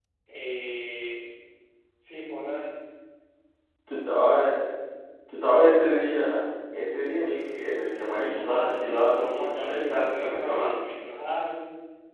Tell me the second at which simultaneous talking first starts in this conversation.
8.0 s

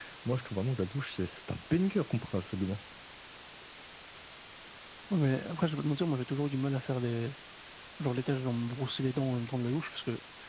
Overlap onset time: none

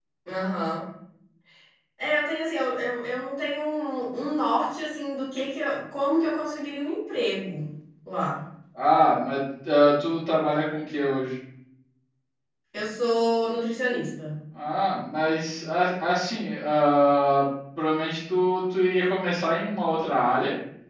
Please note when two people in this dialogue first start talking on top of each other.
none

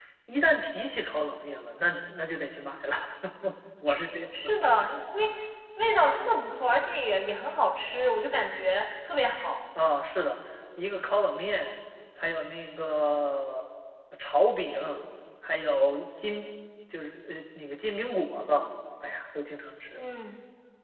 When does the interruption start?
none

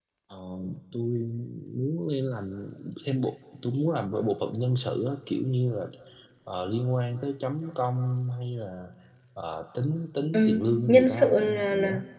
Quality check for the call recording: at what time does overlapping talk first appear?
10.3 s

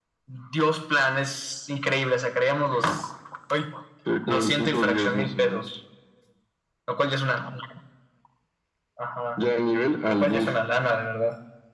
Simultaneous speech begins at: 4.3 s

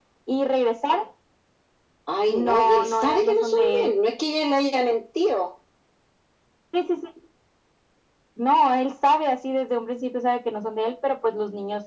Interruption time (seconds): 2.3 s

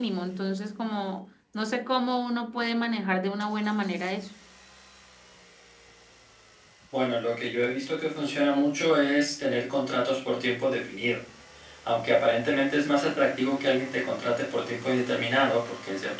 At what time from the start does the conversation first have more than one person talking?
none

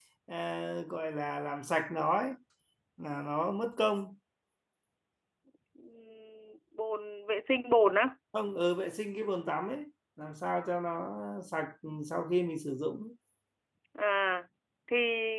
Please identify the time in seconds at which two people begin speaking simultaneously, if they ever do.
none

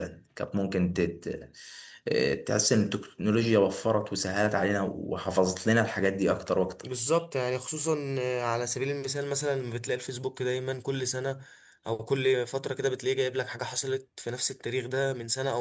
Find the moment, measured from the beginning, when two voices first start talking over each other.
none

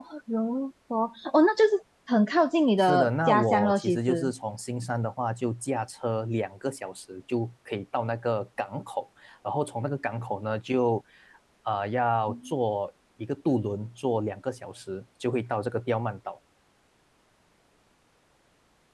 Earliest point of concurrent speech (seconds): 2.8 s

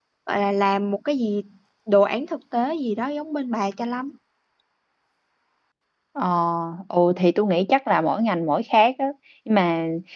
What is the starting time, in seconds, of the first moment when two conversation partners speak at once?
none

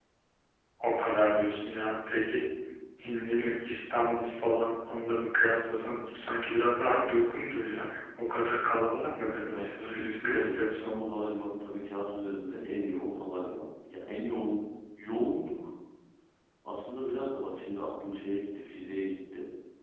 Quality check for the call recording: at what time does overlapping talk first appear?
9.4 s

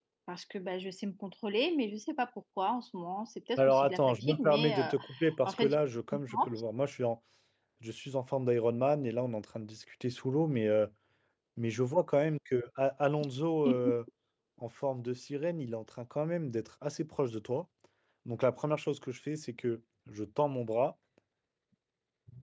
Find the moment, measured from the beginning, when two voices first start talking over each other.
3.6 s

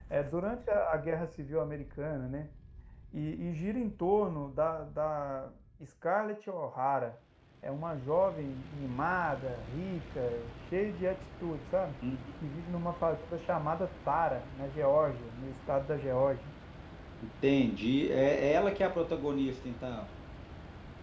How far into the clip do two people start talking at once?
none

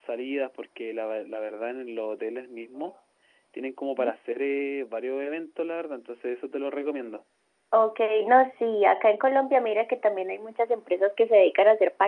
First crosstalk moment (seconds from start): none

